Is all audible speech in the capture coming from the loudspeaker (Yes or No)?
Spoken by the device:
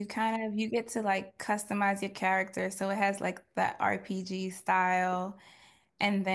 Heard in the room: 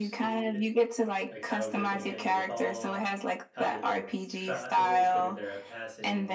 No